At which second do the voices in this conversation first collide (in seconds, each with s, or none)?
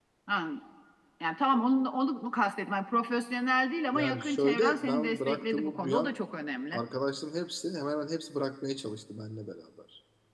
3.9 s